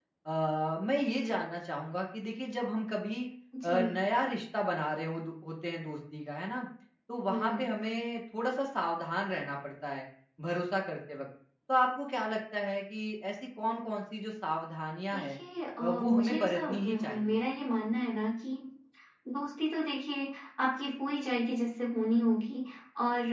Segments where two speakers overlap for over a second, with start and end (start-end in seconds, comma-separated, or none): 15.8-17.4